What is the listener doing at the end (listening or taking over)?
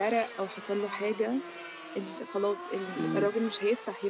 listening